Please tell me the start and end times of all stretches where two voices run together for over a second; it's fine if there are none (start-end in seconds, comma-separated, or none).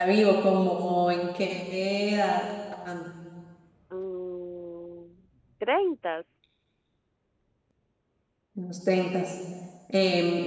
none